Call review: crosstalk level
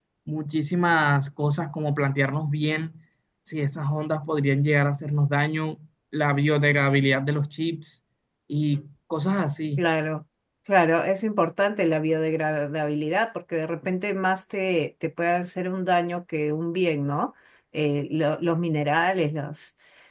none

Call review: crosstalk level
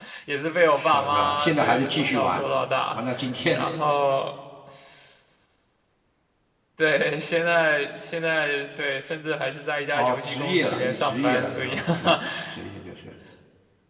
present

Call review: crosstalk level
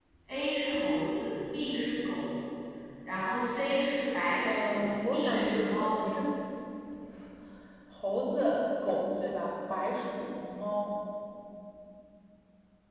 present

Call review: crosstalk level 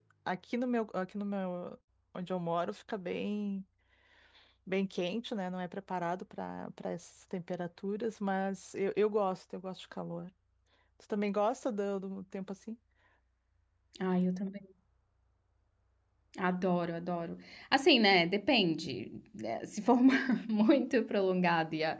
none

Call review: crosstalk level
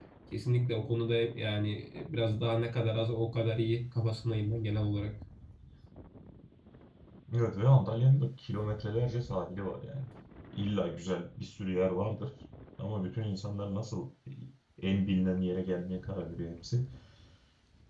none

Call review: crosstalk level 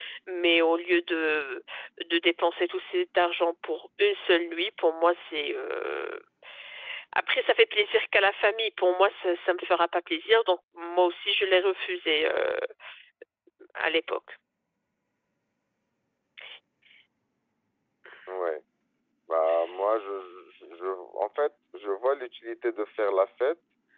none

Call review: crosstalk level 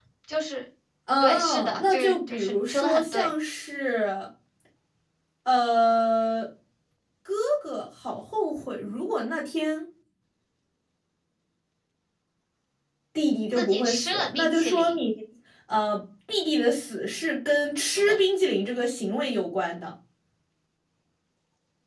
present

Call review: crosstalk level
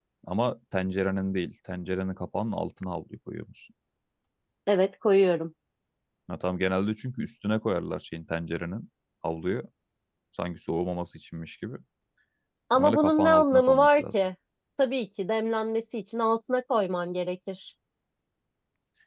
present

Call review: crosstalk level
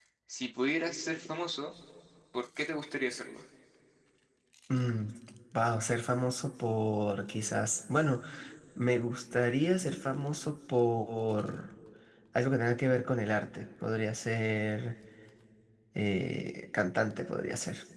none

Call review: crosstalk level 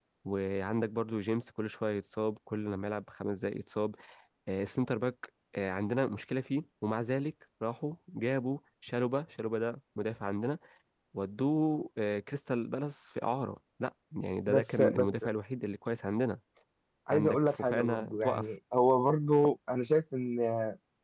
present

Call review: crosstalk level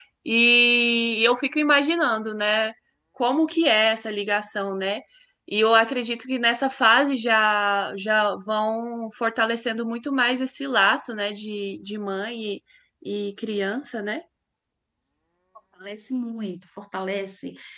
none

